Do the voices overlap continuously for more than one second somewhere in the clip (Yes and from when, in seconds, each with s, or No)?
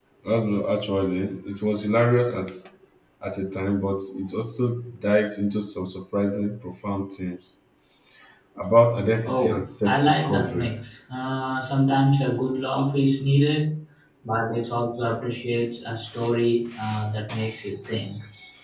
Yes, from 9.2 s